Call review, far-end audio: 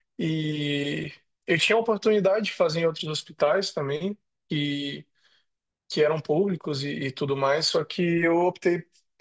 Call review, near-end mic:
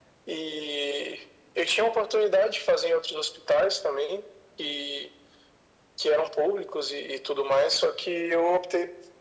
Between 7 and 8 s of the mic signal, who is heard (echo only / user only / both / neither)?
echo only